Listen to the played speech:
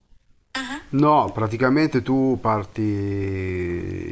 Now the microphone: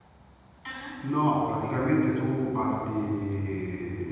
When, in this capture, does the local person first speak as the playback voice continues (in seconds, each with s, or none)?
none